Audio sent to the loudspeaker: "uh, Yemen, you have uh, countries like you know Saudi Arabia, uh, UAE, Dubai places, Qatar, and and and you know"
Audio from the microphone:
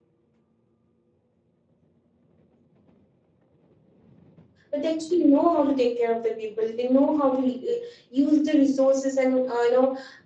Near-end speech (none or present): present